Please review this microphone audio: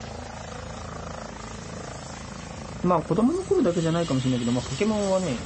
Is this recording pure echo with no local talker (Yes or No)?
No